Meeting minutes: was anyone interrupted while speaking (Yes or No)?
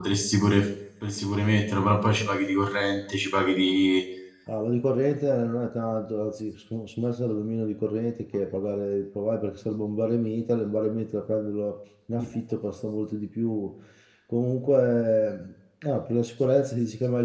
No